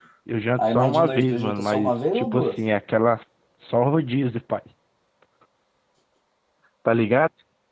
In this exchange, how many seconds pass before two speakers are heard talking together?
0.6 s

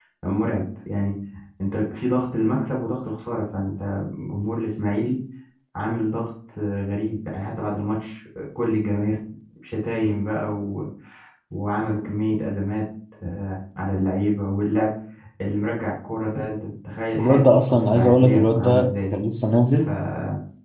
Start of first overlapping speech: 17.2 s

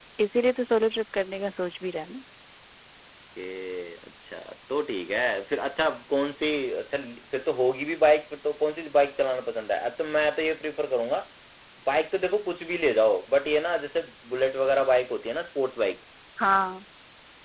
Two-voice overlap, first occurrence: none

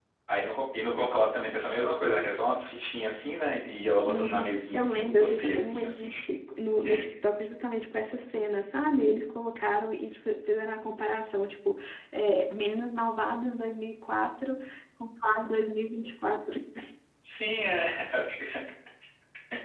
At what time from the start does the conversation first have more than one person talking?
4.0 s

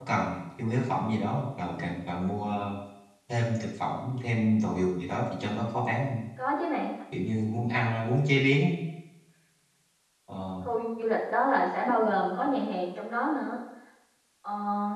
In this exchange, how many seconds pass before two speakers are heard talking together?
none

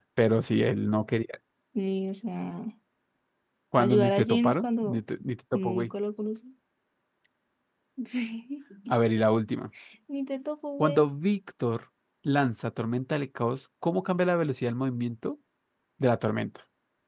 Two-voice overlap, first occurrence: 3.8 s

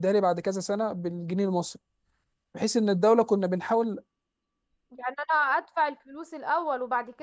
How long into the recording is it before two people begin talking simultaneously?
none

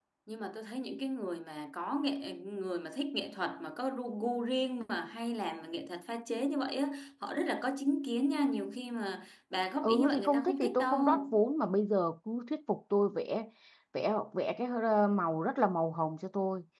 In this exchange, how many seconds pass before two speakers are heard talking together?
9.8 s

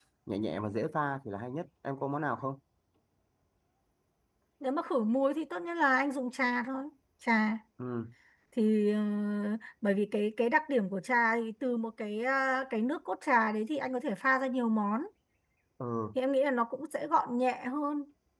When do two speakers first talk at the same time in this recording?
none

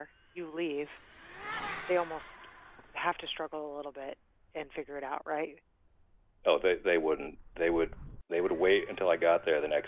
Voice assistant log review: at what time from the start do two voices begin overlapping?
none

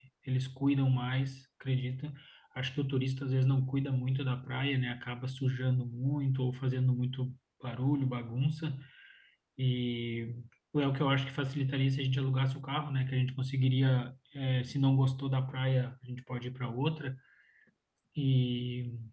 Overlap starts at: none

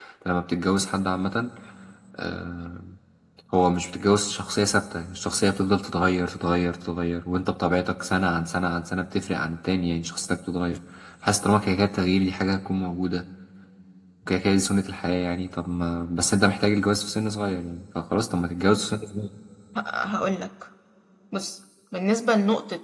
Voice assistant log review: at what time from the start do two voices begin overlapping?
none

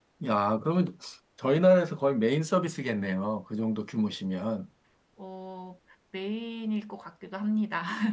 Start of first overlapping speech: none

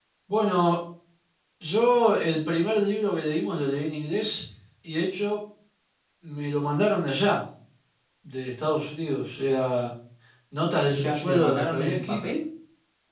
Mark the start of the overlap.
10.9 s

